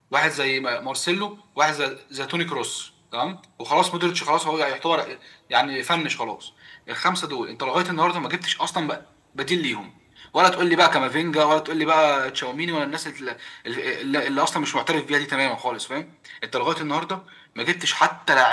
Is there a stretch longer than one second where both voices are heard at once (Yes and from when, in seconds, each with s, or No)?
No